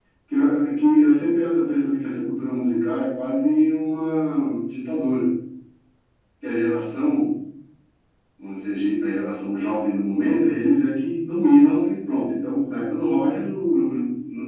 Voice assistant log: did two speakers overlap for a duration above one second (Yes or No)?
No